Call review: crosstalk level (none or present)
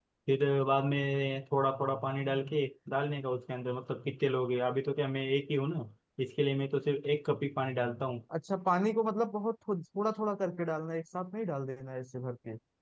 none